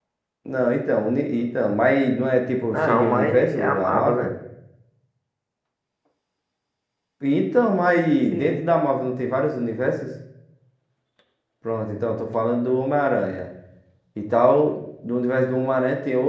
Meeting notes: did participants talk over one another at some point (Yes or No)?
Yes